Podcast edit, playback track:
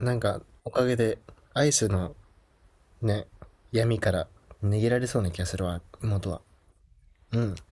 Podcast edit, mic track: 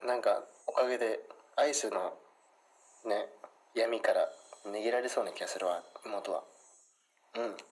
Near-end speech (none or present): none